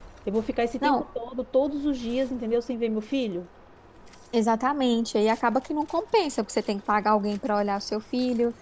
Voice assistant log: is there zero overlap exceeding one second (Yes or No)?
Yes